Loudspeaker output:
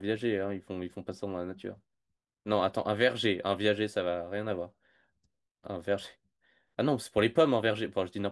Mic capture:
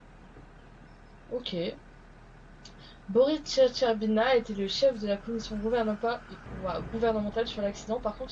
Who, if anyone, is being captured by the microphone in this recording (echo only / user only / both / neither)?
user only